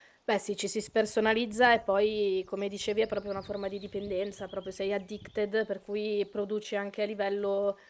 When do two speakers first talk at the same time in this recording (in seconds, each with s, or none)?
none